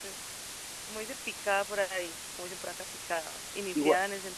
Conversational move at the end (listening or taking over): listening